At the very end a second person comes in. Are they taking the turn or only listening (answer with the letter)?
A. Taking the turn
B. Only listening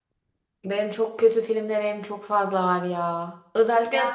B